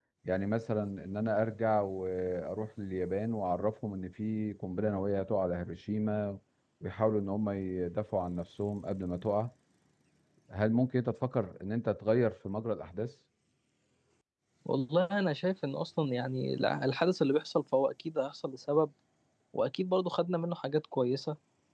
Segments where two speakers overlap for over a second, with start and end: none

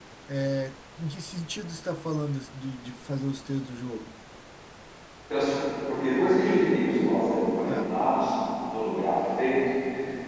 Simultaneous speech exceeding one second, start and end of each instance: none

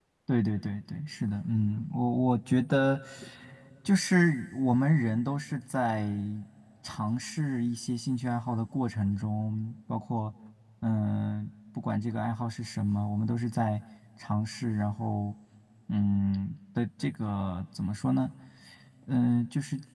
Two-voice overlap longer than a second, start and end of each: none

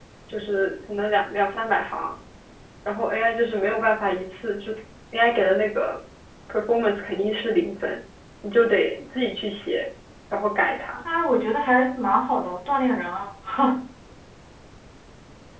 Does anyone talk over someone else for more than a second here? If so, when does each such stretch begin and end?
none

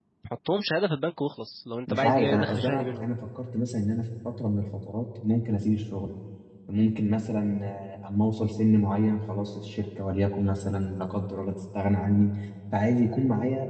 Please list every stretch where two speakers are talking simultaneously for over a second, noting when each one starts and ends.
1.9-3.1

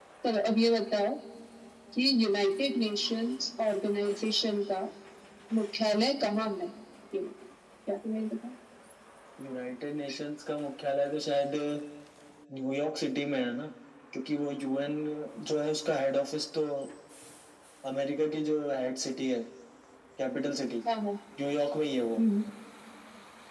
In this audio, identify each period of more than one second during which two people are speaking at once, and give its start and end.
none

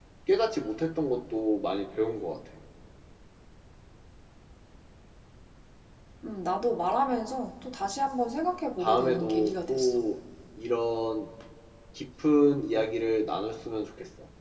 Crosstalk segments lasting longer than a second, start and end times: 8.8-10.0

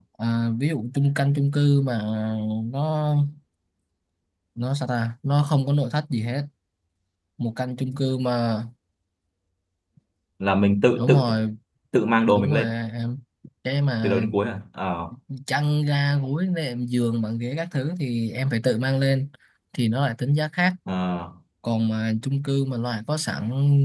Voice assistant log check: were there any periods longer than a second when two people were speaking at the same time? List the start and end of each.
none

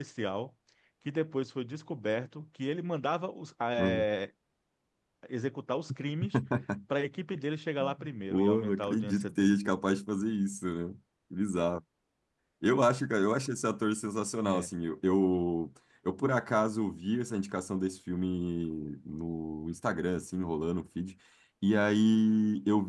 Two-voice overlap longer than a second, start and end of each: 8.3-9.5

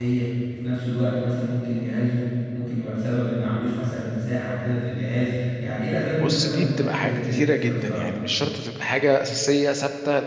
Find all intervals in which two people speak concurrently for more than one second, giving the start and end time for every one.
6.1-8.1

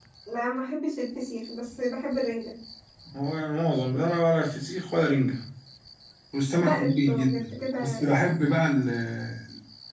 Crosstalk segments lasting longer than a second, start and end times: 6.6-8.1

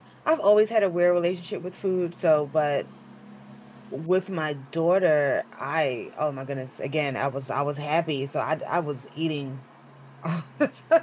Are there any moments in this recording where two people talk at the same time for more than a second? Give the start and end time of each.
none

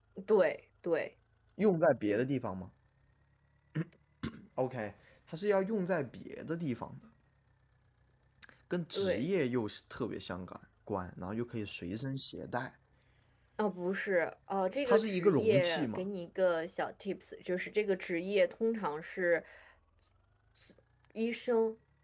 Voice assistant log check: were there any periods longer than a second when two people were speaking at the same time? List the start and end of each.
14.8-16.1

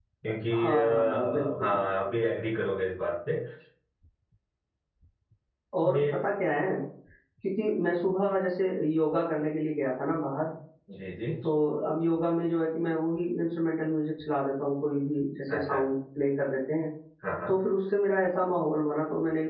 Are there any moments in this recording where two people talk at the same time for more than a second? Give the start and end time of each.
0.6-1.8

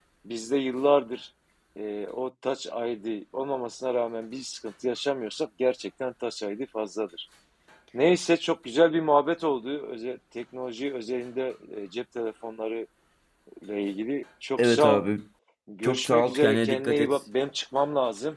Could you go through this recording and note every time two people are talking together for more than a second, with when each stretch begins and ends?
15.8-17.2

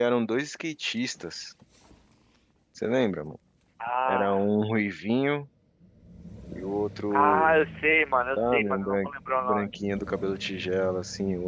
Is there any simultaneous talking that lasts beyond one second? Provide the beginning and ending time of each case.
8.4-9.6

